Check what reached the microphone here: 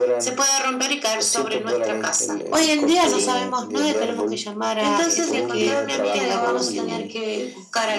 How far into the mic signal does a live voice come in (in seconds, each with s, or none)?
2.5 s